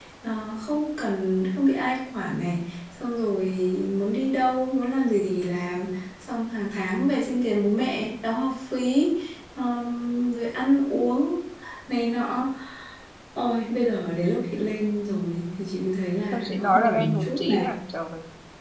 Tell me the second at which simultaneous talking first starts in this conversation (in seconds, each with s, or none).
16.3 s